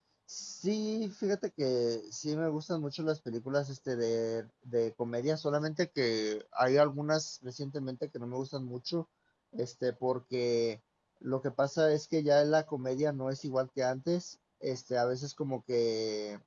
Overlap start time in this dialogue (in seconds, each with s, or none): none